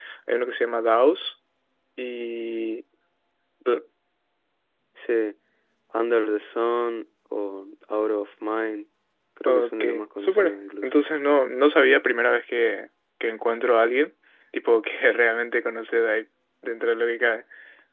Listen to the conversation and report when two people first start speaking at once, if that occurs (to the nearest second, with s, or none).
9 s